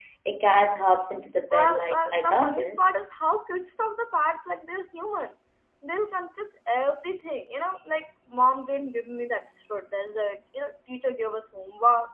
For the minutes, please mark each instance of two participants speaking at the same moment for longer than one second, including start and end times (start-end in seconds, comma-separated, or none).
1.5-2.9